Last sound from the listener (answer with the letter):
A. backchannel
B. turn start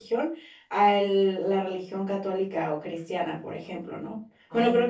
A